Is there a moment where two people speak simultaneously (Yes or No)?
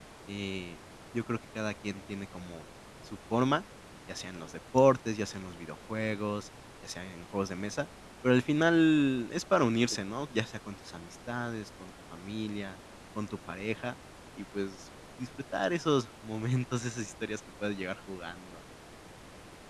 No